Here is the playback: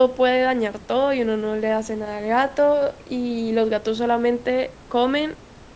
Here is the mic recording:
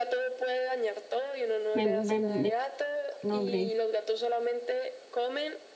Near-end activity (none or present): present